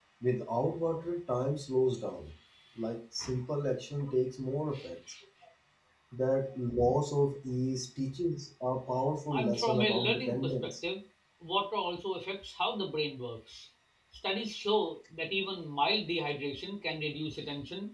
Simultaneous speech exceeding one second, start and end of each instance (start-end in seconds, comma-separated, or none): 9.3-10.7